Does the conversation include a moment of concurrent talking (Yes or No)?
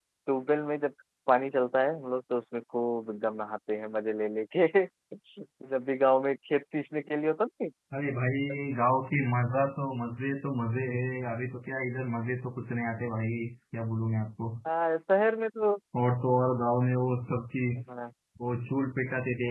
No